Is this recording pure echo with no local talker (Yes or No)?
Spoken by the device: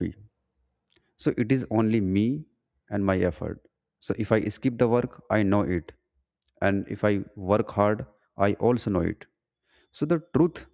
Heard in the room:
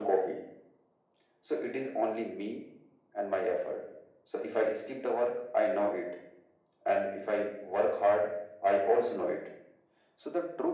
Yes